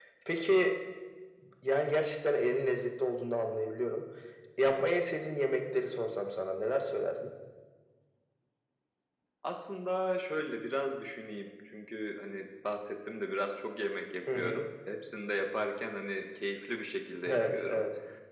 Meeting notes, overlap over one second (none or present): none